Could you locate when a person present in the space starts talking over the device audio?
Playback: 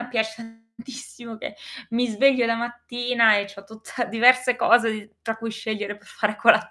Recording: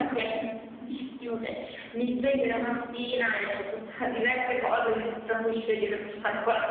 none

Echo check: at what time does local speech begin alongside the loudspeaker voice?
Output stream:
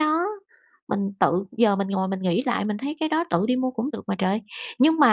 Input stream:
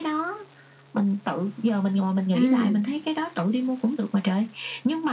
2 s

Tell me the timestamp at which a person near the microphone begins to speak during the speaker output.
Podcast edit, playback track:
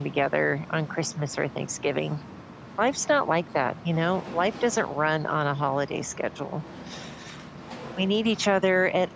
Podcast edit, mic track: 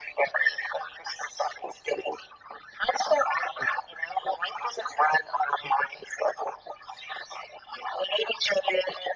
none

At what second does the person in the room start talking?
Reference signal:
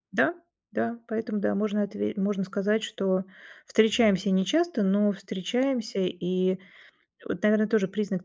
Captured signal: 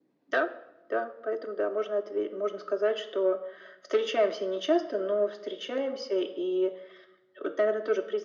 none

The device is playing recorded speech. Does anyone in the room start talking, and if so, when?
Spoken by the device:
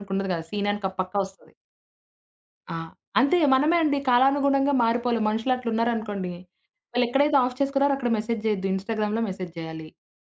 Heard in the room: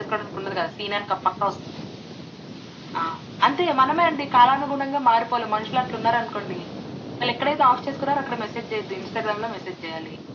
none

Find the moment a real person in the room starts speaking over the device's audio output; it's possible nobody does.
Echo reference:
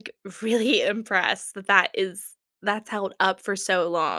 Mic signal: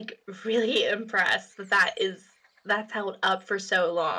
none

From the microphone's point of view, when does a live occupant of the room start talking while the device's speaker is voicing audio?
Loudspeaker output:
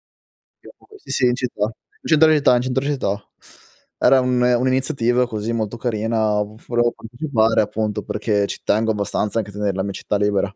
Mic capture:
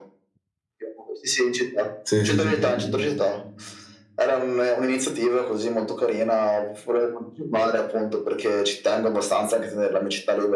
2 s

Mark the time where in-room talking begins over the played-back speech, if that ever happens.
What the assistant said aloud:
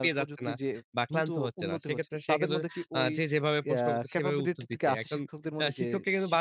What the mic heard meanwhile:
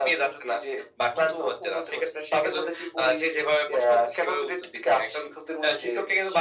none

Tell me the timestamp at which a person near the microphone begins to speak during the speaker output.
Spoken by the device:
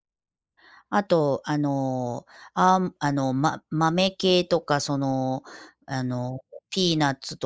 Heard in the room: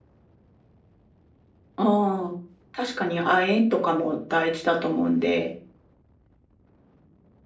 2 s

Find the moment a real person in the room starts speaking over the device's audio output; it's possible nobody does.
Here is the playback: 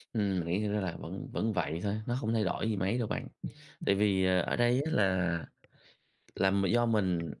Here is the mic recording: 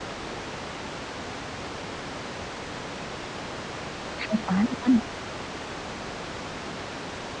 4 s

